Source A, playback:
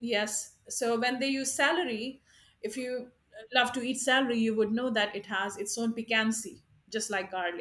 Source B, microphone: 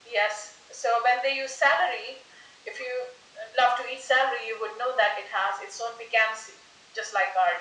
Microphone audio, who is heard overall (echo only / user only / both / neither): echo only